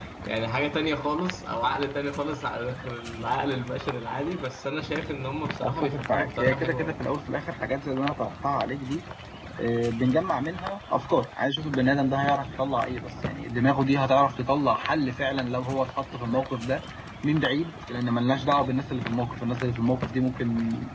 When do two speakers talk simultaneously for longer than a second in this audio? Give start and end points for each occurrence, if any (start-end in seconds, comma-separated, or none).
5.6-7.0